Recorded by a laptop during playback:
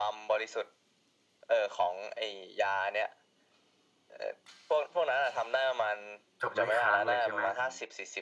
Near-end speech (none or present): present